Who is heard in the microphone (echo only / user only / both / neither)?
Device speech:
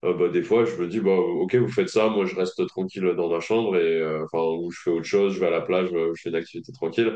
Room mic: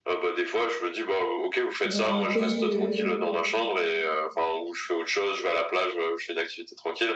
both